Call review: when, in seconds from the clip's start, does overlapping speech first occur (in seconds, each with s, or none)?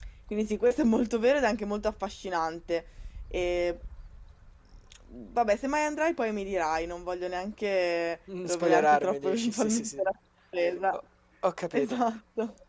8.3 s